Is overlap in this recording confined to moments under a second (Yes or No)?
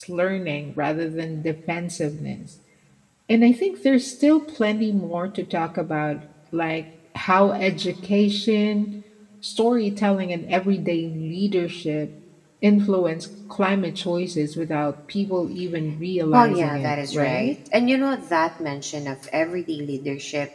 No